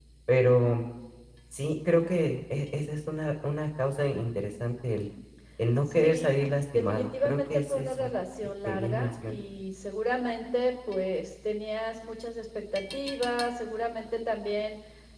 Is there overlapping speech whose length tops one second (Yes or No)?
Yes